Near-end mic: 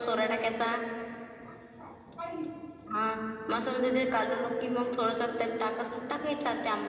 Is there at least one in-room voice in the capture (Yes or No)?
No